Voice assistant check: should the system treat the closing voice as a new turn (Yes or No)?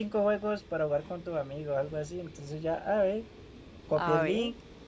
No